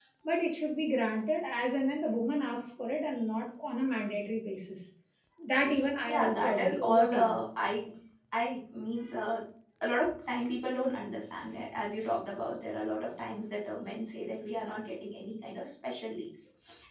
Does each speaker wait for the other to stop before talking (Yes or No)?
No